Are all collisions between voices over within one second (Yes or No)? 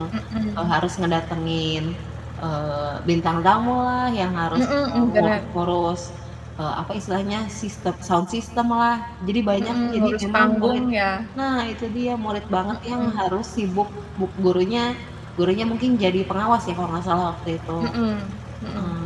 No